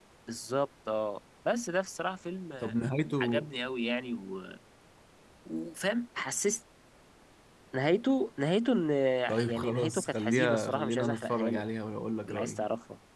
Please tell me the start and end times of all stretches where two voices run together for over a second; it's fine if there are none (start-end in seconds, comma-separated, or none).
9.5-11.6